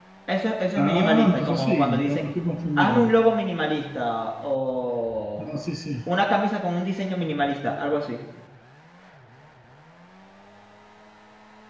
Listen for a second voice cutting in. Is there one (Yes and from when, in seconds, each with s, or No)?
Yes, from 0.8 s